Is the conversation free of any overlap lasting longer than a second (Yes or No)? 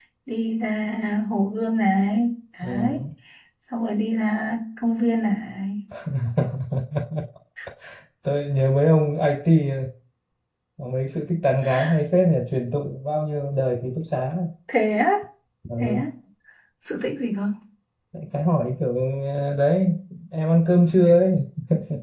Yes